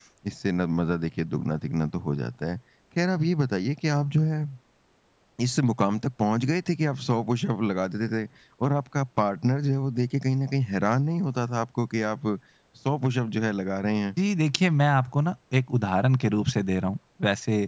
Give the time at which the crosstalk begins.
none

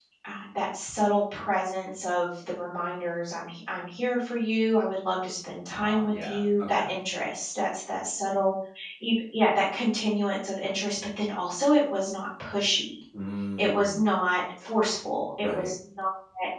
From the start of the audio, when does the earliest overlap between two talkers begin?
5.7 s

